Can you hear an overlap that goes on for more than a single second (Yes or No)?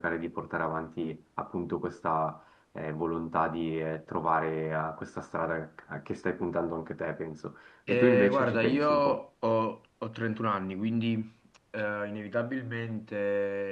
Yes